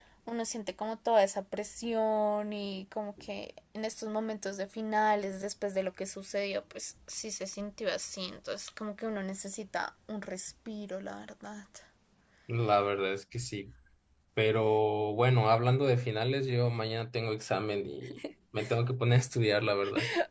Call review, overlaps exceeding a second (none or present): none